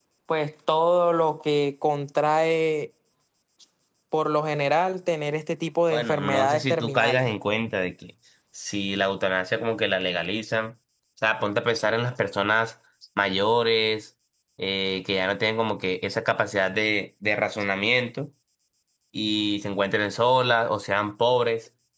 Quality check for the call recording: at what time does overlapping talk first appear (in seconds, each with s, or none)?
5.9 s